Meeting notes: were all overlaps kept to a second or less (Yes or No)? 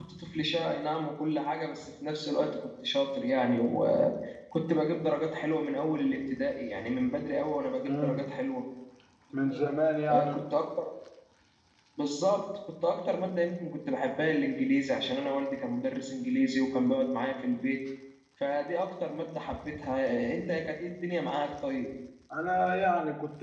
Yes